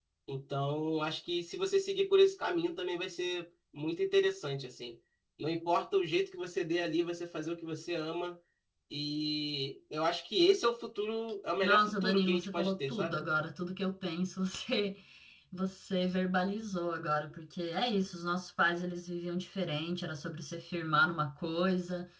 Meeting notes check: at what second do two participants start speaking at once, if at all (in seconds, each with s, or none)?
11.6 s